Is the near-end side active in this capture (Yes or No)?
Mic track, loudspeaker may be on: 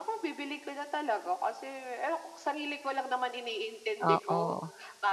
Yes